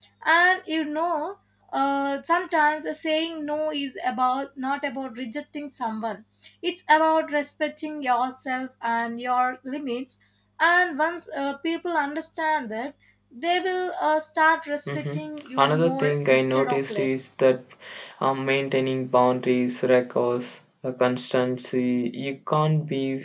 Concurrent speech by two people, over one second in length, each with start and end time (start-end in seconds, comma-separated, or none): 15.6-17.3